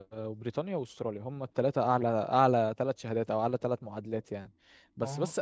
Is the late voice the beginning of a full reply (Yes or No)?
No